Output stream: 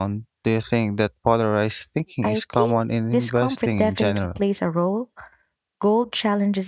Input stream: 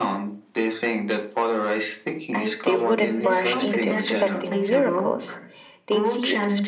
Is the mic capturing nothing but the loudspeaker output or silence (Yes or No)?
No